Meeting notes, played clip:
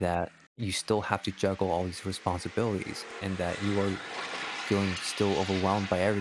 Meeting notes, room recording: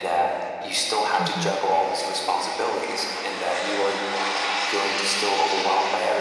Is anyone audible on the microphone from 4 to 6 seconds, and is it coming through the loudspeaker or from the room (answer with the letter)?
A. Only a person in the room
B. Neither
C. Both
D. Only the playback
D